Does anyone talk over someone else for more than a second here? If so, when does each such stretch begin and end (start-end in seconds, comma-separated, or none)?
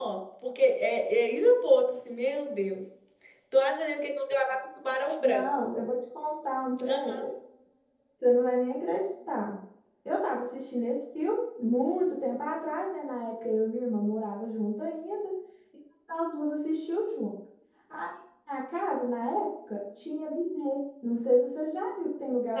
none